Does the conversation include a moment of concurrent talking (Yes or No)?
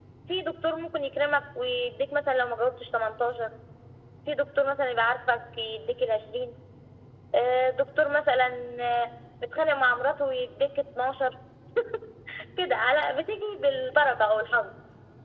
No